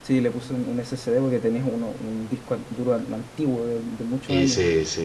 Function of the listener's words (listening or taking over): taking over